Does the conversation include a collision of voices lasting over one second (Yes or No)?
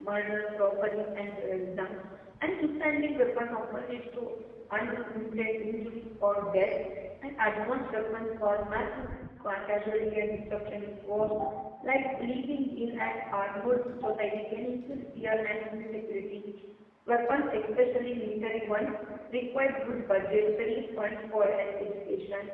No